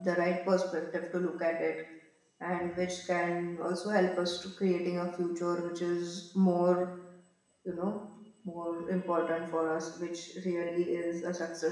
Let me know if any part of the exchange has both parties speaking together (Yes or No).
No